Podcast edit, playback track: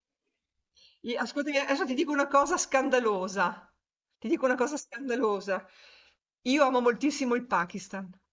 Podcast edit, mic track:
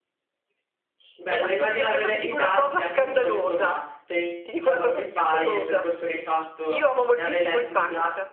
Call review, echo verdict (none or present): present